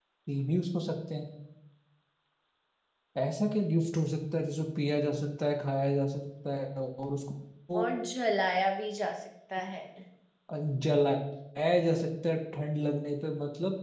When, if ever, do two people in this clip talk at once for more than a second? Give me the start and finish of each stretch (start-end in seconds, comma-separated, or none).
none